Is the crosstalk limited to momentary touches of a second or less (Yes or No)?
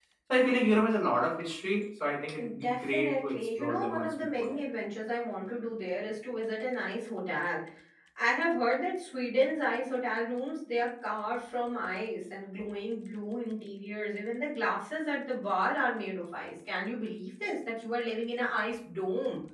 No